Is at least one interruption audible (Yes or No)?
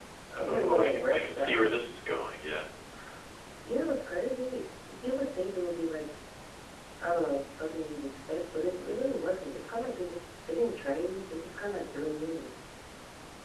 Yes